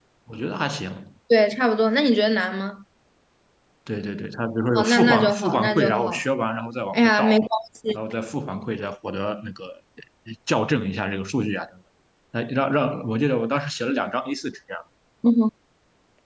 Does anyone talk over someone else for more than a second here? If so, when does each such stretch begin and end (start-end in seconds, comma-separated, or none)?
4.8-6.2